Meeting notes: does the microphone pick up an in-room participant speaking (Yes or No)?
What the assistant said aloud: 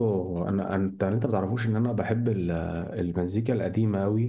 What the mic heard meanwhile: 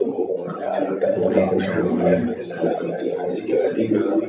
Yes